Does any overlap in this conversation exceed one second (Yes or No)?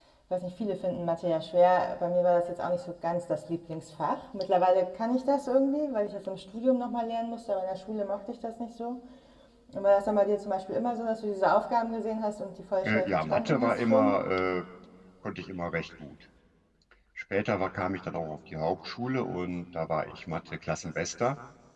Yes